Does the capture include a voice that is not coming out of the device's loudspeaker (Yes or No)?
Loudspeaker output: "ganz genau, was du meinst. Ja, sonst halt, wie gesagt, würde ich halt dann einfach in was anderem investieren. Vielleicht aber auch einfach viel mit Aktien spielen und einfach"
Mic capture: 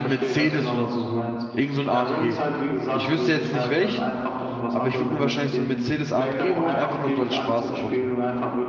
Yes